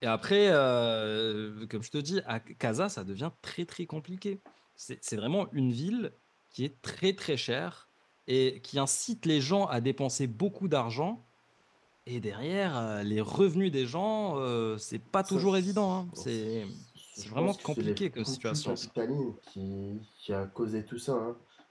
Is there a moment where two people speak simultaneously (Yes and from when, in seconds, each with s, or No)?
Yes, from 15.2 s